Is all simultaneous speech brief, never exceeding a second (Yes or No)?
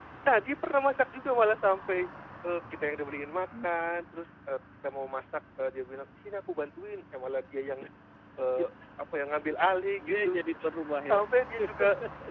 Yes